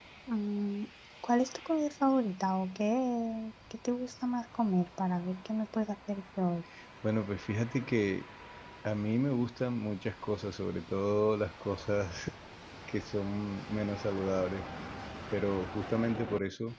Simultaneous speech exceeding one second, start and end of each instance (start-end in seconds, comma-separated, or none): none